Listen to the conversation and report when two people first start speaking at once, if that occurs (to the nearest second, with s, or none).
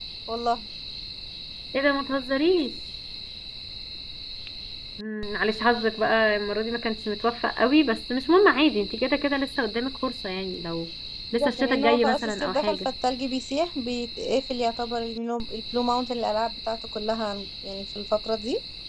11 s